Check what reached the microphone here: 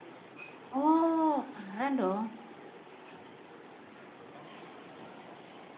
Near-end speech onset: 0.7 s

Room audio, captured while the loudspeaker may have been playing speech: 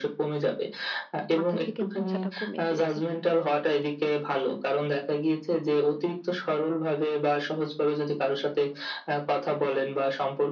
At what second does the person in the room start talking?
1.4 s

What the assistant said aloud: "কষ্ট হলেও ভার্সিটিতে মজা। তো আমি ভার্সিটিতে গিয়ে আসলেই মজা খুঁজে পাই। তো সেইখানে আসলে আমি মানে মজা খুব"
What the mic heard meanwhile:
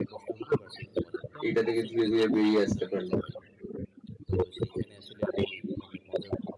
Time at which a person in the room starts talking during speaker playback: 1.4 s

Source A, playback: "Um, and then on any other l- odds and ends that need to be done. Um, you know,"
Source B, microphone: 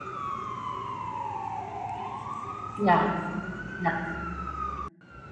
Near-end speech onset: 2.8 s

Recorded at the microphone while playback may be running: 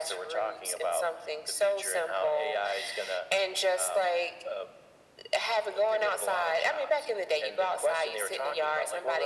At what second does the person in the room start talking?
none

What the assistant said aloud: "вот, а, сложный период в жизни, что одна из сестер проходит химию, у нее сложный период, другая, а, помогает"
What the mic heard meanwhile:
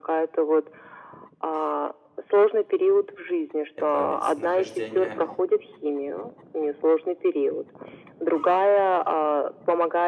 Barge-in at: 3.8 s

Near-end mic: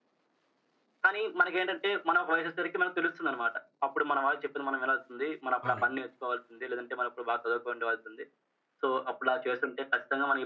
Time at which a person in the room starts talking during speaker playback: 5.6 s

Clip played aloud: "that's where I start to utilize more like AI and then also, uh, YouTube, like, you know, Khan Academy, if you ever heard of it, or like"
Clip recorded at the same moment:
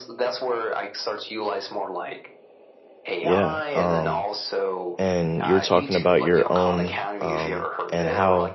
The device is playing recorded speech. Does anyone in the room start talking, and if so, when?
3.2 s

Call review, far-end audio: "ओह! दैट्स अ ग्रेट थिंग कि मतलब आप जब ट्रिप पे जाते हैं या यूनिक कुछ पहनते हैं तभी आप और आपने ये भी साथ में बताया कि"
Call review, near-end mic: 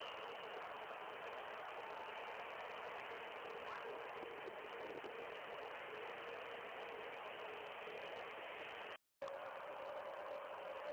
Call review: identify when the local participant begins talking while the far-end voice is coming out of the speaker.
none

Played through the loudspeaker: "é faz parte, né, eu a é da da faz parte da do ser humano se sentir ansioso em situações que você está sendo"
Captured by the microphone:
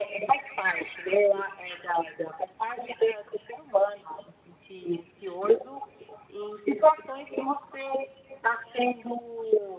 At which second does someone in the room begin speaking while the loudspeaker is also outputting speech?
none

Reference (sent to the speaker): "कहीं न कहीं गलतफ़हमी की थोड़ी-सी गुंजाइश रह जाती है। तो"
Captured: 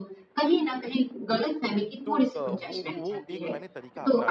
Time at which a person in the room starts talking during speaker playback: 2.0 s

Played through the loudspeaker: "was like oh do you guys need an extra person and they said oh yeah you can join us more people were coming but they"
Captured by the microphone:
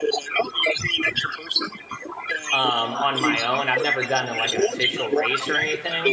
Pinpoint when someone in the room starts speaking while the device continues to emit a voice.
2.5 s

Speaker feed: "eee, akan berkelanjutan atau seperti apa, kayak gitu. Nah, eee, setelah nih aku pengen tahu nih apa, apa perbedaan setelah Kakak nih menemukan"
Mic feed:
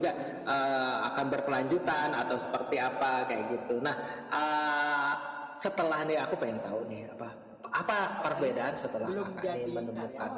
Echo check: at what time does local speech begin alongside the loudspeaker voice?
8.2 s

